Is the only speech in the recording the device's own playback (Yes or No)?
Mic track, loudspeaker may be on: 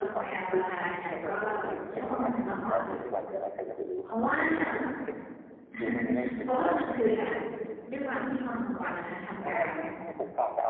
No